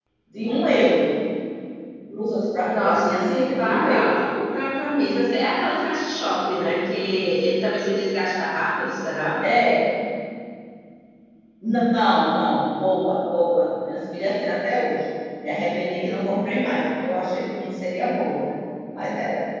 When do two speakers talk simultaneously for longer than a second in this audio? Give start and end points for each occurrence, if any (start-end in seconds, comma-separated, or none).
2.6-4.2